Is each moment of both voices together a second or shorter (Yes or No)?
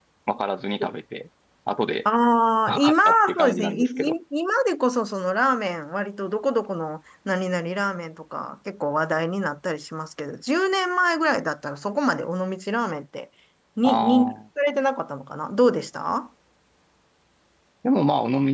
No